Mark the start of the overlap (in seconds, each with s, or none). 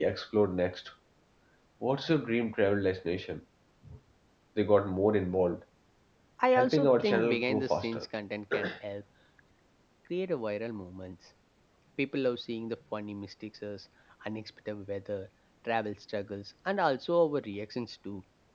6.5 s